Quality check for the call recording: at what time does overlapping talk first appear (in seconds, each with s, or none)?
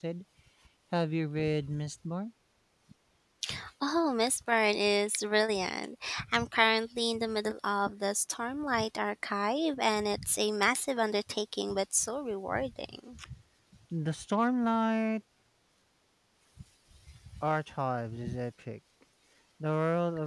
none